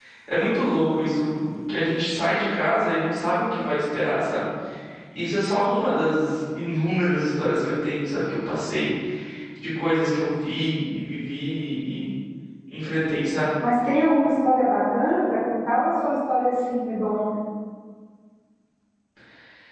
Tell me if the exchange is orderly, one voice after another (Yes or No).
Yes